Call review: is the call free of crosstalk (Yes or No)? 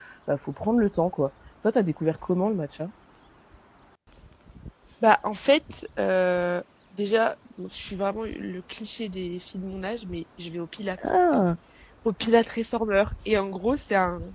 Yes